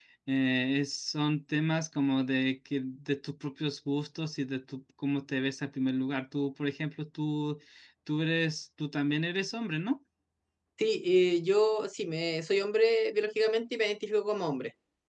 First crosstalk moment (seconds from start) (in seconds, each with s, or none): none